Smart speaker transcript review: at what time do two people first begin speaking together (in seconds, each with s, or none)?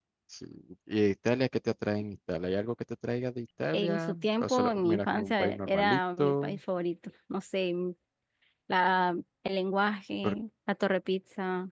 3.7 s